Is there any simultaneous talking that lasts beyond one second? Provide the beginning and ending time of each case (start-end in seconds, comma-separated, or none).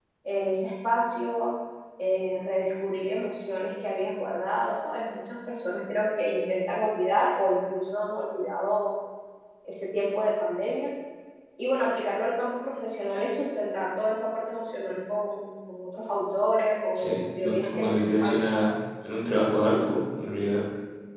16.9-18.7